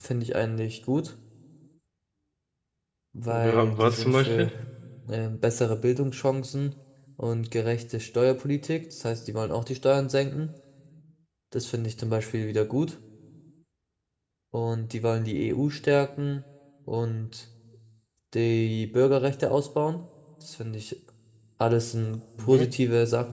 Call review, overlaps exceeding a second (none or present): present